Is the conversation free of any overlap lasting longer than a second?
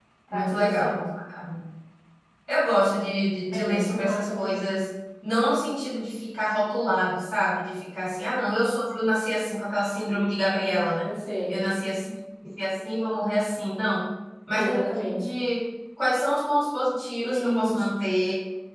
No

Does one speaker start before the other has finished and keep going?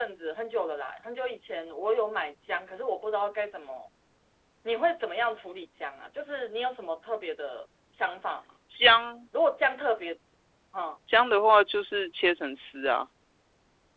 No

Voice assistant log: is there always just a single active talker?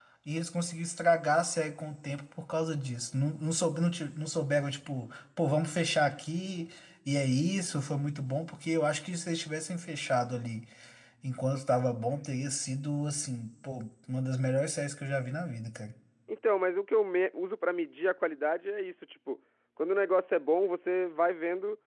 Yes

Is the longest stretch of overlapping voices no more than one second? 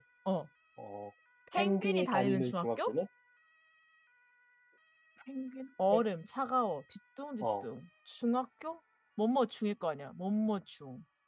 No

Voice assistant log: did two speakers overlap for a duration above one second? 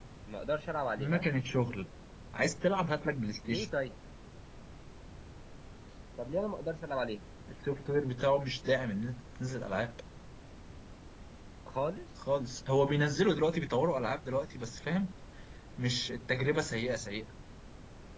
No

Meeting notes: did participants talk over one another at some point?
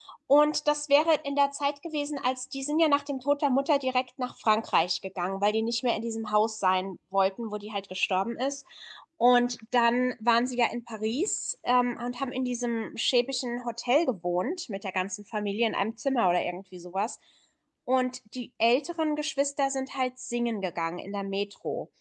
No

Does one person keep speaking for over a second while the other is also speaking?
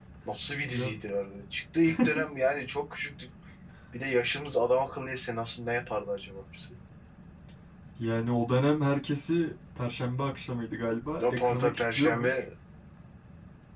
Yes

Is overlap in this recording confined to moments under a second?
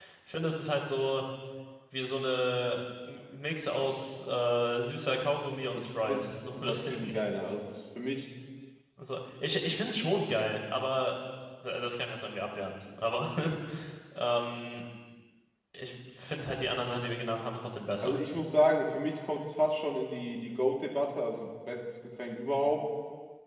No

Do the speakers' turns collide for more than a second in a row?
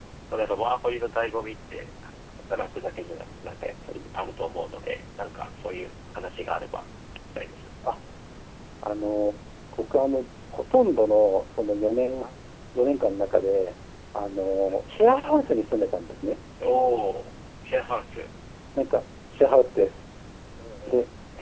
No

